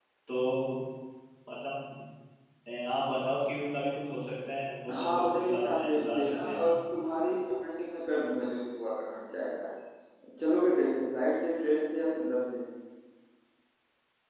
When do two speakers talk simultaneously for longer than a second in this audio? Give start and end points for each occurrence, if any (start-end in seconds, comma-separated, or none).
4.9-6.7